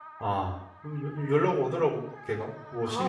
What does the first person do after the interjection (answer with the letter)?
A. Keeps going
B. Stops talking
B